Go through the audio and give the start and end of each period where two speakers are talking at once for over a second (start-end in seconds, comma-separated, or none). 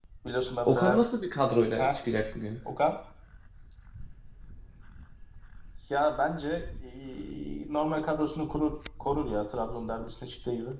none